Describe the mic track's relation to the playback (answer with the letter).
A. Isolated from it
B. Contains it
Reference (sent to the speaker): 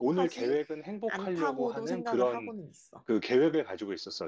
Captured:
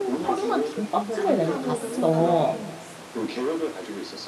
B